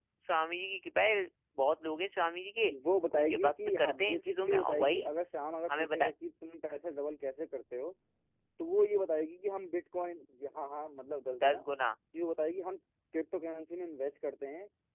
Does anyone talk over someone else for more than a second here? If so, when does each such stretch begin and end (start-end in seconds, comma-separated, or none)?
3.2-5.1